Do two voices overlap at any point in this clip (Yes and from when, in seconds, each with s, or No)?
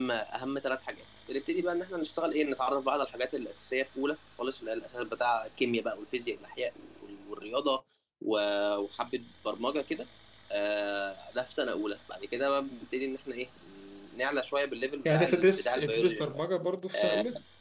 Yes, from 15.0 s